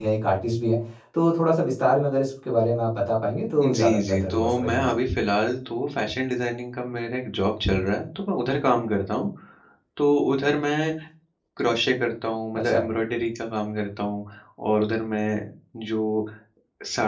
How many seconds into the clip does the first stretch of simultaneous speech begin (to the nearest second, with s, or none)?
4 s